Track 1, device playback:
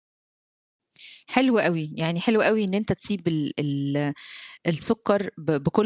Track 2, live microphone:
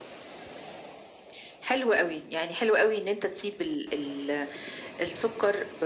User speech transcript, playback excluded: none

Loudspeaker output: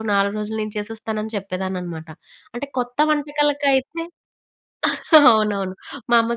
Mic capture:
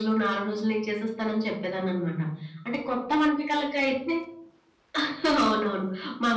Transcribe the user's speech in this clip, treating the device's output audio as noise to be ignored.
none

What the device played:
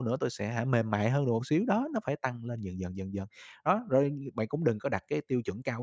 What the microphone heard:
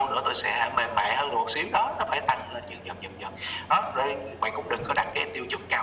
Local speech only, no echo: none

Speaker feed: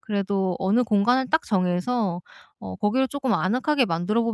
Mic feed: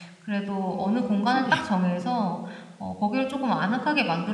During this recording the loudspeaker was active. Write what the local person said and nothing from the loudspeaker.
어 침대요.

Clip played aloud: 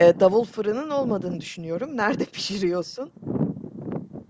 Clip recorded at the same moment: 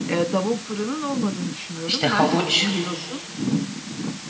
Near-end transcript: İşte, havuç,

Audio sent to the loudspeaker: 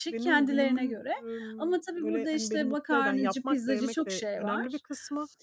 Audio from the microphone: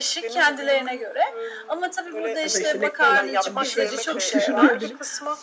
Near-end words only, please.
ya da, işte, ne kullanıyorsan bir şeye, bir toplu taşımaya binip,

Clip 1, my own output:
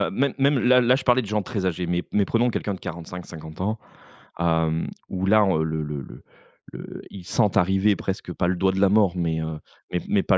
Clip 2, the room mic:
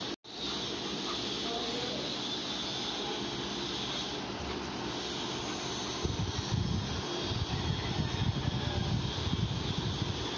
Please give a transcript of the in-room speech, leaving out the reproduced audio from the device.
none

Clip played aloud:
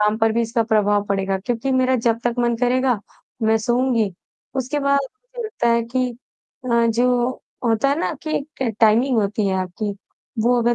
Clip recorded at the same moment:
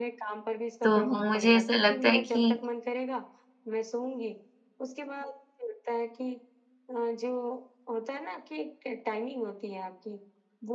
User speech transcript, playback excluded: तो मुझे ऐसा लगता है कि

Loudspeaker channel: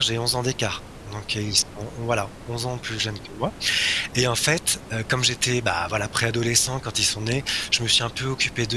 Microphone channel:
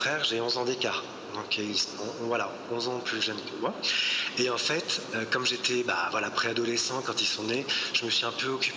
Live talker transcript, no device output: none

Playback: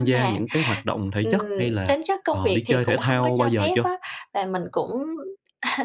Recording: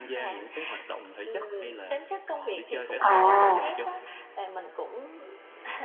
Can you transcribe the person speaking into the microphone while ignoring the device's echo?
À.

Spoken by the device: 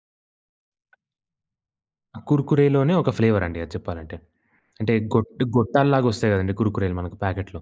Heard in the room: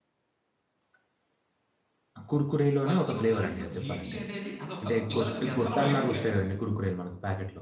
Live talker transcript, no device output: ప్రతి ఒక్కళ్ళింట్లో జీటీఏ అనేది, అదొక పిల్లలకి వ్యసనం ఏకంగా.

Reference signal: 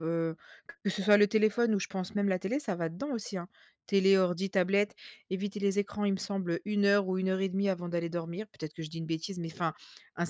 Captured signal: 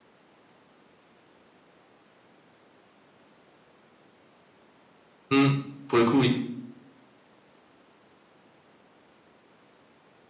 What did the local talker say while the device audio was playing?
Mmh. Pour le coup, oui.

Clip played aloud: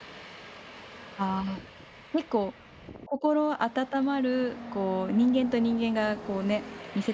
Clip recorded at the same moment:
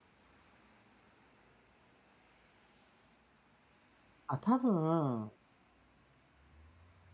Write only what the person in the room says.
あ、多分、

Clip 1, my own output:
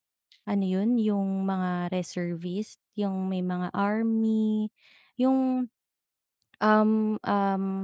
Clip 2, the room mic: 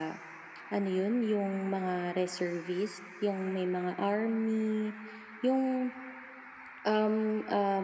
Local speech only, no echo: none

